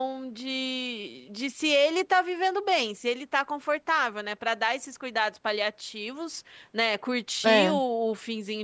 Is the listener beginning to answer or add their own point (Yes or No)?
No